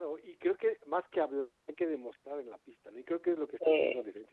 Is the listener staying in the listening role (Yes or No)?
Yes